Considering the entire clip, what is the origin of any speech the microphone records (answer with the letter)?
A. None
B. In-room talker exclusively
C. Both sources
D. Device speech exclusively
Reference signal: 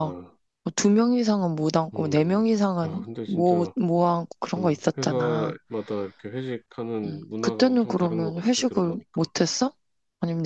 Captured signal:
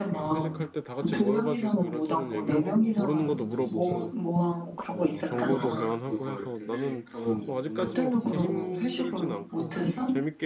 C